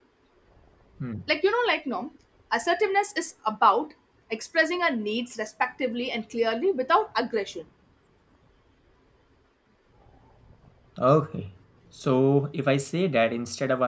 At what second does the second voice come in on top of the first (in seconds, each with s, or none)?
none